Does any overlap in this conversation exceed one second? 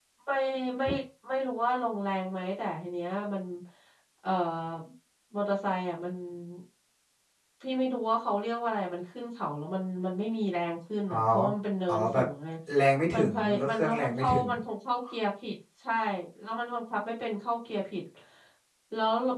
Yes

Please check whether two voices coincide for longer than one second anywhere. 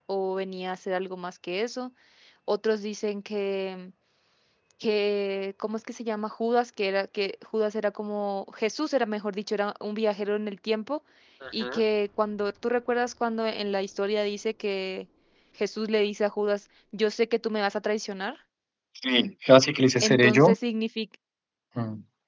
No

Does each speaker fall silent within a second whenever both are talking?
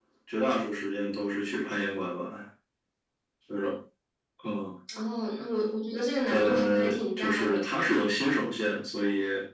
No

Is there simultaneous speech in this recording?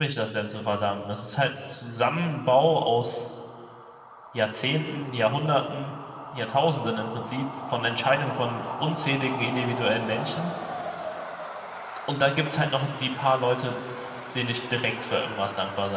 No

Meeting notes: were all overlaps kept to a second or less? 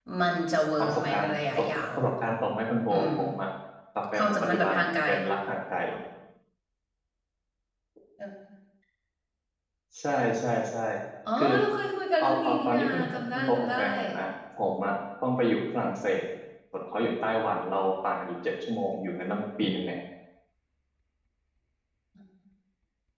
No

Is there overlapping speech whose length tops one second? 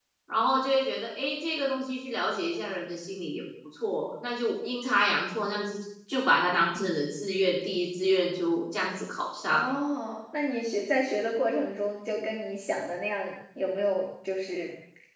No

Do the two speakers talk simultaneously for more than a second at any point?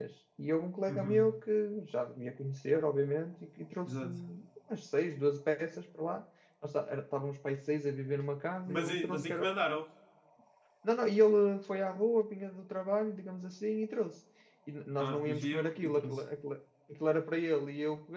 Yes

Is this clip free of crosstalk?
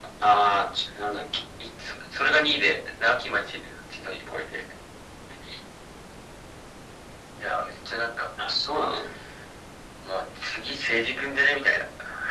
Yes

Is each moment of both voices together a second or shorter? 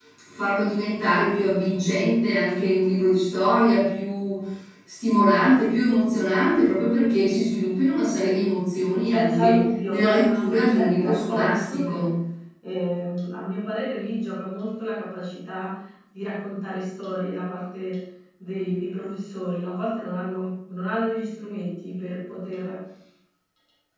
No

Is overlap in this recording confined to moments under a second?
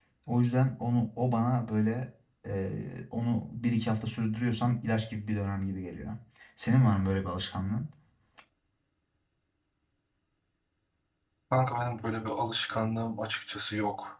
Yes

